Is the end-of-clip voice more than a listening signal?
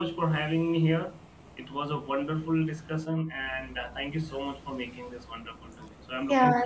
Yes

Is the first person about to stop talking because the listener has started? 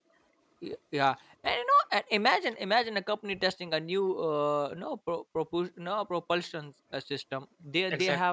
No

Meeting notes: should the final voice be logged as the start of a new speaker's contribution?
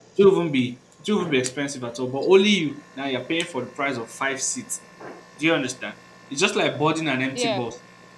No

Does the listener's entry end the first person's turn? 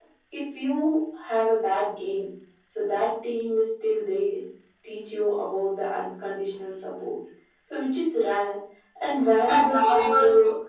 No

